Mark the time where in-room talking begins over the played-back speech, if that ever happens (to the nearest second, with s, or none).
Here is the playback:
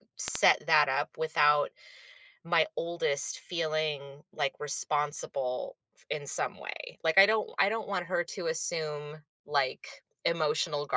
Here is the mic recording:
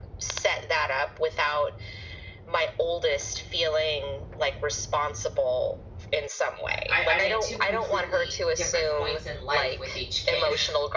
7 s